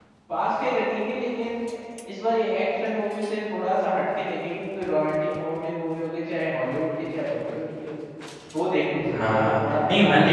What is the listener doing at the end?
taking over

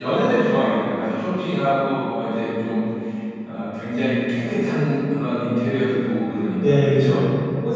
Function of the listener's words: taking over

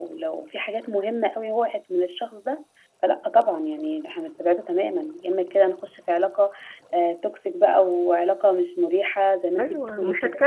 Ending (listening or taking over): taking over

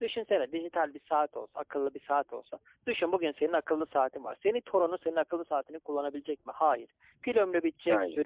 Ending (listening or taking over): listening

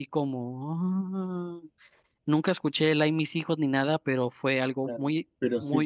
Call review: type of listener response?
taking over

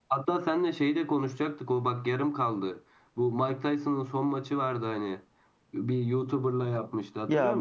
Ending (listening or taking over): taking over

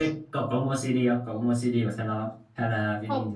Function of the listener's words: taking over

